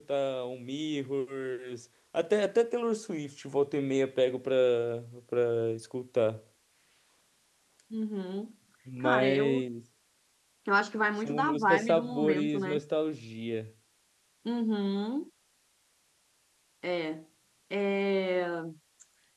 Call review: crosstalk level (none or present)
present